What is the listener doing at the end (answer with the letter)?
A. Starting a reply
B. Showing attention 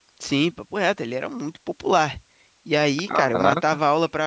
B